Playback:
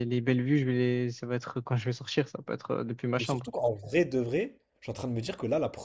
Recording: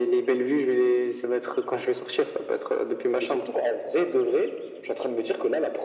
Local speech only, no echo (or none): none